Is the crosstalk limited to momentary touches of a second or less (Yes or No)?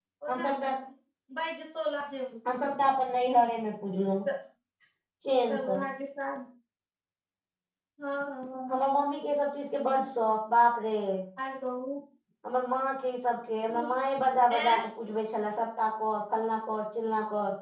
Yes